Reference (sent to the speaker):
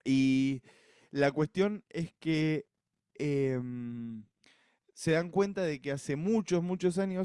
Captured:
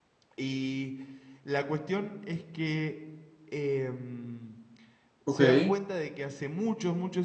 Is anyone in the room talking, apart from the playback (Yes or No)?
Yes